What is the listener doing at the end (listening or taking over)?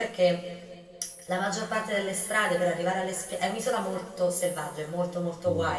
listening